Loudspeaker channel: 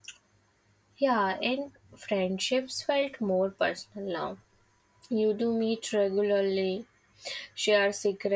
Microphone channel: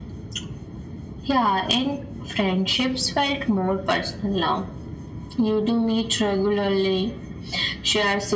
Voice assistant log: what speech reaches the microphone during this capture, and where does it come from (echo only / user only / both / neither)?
echo only